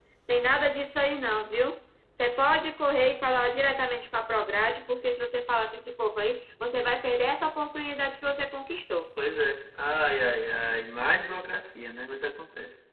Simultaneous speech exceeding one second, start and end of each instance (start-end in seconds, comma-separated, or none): none